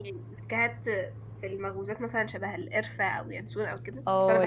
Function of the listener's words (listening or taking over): taking over